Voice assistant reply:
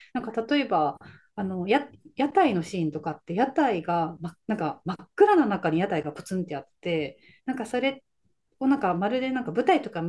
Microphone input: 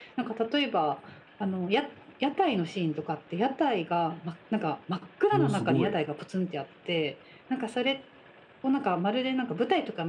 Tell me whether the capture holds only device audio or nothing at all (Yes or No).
No